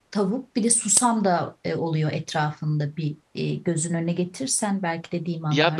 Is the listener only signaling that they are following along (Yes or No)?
No